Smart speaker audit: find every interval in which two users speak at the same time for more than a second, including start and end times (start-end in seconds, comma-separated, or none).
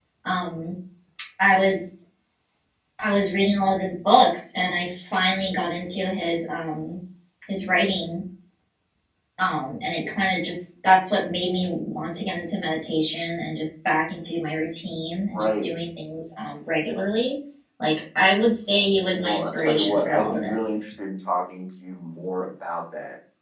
19.2-20.8